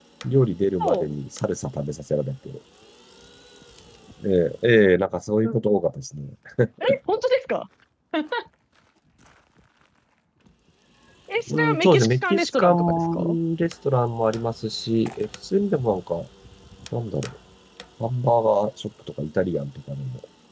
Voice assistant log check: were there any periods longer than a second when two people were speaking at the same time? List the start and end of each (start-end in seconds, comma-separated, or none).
11.5-13.4